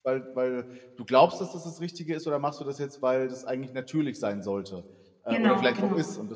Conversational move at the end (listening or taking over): listening